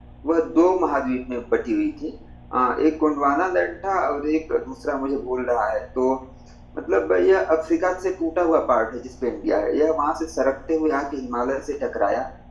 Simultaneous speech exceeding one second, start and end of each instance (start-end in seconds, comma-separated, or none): none